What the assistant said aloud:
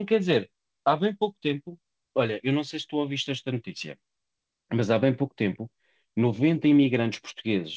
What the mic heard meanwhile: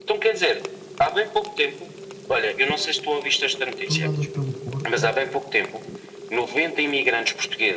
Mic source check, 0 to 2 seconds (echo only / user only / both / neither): echo only